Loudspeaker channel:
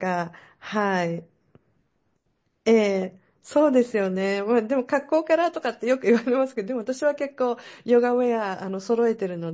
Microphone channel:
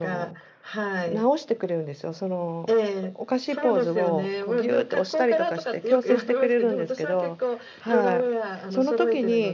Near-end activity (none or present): present